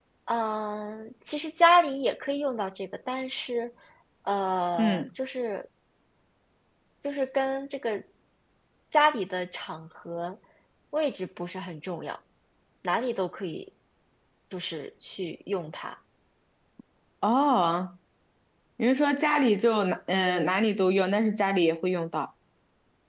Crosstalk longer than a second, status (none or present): none